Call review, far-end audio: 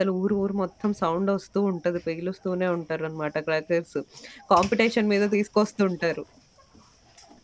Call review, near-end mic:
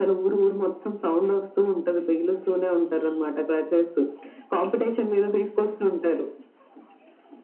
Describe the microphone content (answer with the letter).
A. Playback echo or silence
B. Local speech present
A